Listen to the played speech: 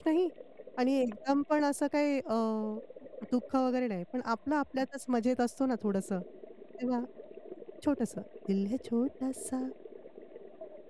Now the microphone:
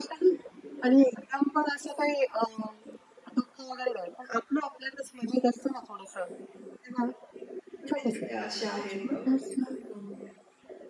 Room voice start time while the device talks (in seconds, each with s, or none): 7.8 s